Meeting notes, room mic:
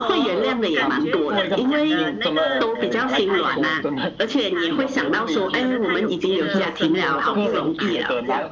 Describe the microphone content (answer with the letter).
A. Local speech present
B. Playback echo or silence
A